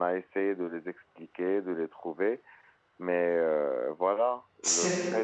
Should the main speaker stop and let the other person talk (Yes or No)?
No